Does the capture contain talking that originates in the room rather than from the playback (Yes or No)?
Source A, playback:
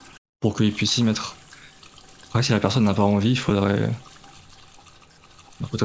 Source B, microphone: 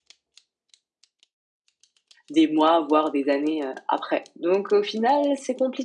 Yes